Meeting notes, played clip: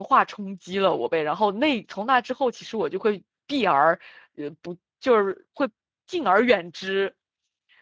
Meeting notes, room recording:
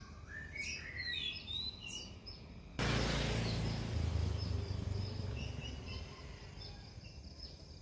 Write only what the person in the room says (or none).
none